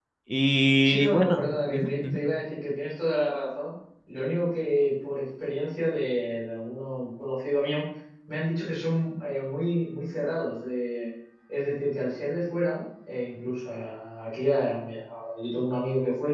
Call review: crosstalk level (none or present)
present